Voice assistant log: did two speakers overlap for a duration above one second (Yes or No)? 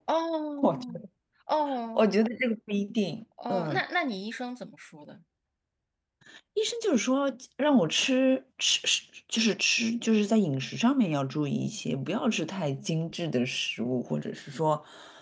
No